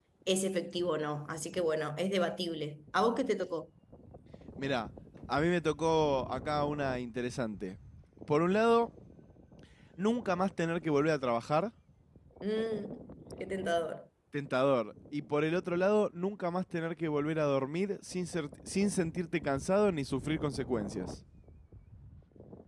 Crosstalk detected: No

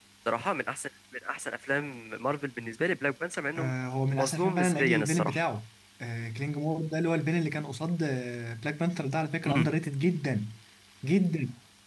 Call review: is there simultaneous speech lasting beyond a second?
Yes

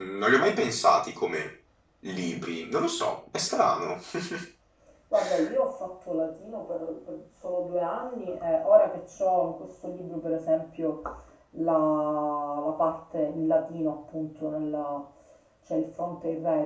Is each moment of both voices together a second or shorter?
Yes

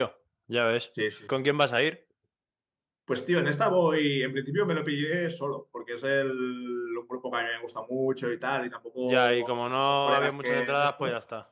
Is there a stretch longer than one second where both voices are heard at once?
Yes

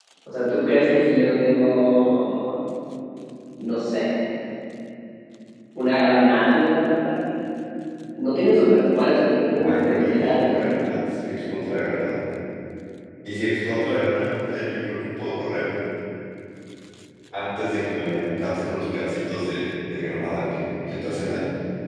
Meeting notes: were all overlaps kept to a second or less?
No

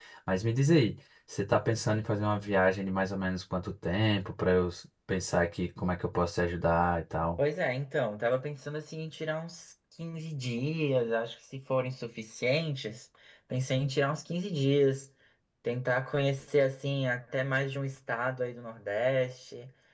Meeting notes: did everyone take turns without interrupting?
Yes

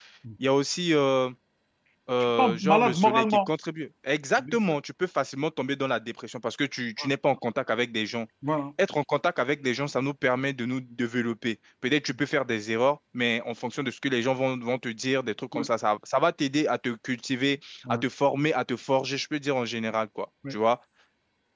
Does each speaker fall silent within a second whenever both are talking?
No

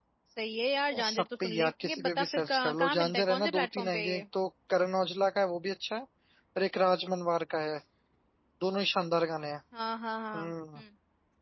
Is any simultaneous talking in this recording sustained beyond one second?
Yes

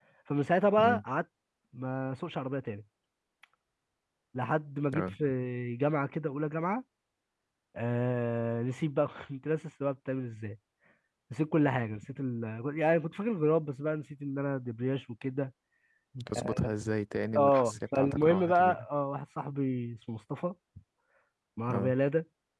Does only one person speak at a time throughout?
No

